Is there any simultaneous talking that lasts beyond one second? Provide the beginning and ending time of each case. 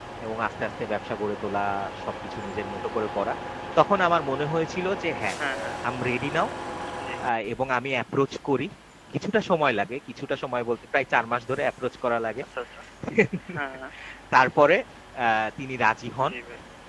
none

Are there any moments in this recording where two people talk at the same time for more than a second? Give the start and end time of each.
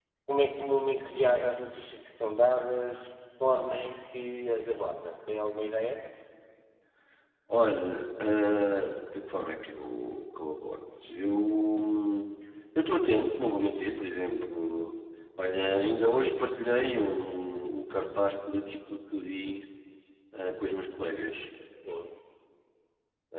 none

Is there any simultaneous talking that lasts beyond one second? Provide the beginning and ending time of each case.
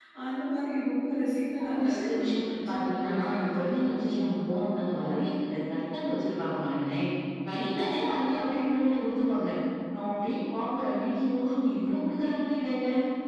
1.8-4.0

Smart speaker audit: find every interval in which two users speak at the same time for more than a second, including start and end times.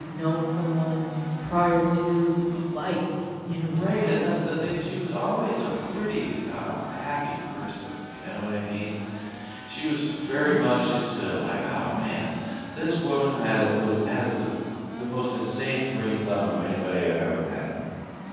3.7-4.9

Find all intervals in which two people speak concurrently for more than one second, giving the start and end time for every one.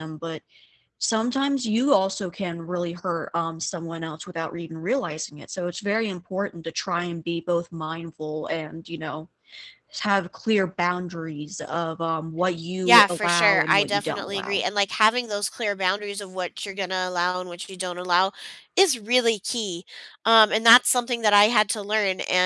12.8-14.6

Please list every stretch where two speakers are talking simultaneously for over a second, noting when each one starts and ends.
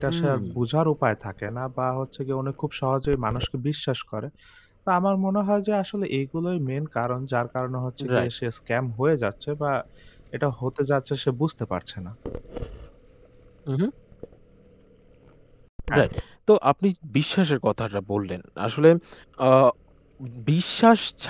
none

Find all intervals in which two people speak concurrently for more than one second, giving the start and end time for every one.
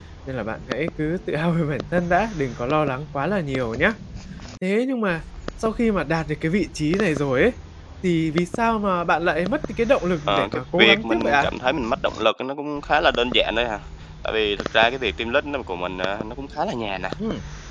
10.3-11.5

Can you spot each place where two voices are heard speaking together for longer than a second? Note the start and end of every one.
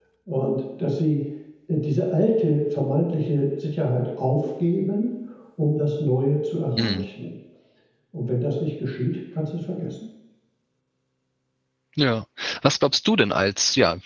none

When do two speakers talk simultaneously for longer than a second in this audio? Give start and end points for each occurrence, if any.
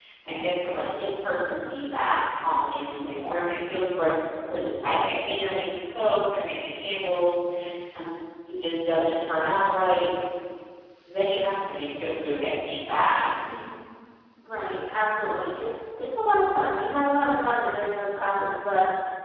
none

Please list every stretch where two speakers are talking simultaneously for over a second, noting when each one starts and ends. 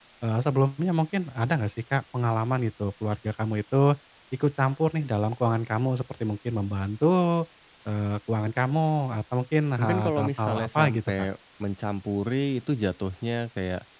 9.8-11.1

